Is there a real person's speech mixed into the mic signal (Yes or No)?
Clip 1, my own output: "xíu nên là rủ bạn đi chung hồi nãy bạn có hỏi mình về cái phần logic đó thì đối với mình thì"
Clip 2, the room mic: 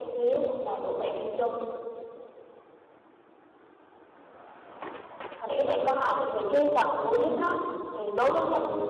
No